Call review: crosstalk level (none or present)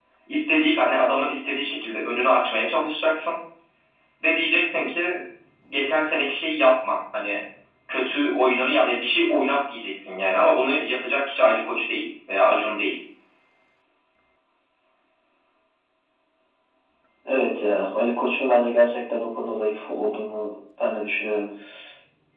none